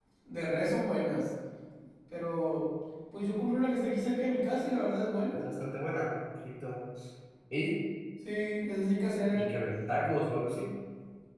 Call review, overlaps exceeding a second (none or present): none